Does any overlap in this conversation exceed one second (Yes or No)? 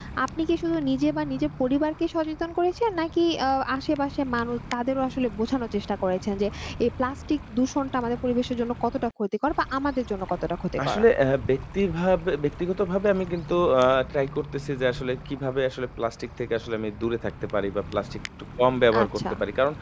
No